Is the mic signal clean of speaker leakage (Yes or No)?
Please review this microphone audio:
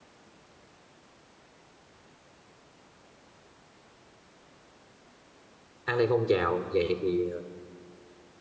Yes